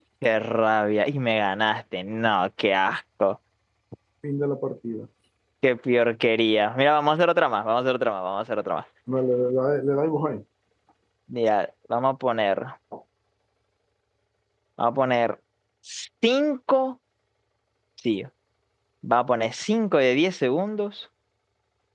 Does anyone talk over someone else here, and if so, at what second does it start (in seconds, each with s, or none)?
none